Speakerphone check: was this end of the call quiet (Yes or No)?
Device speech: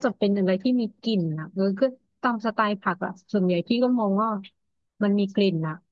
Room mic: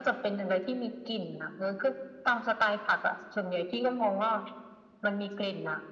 Yes